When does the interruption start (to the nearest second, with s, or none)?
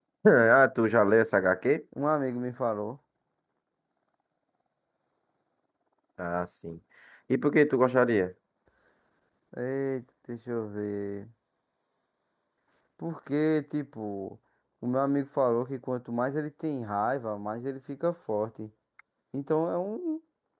none